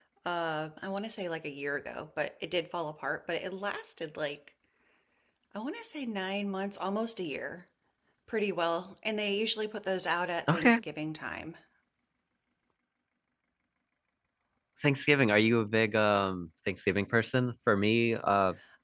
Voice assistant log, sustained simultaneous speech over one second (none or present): none